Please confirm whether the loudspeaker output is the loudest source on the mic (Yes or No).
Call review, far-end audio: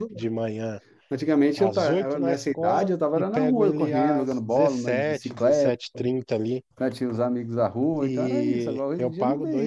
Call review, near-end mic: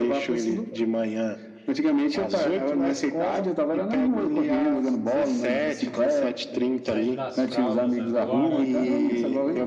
Yes